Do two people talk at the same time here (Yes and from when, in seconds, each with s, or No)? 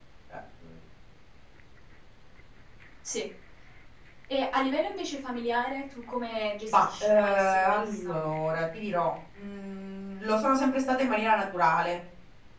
Yes, from 6.7 s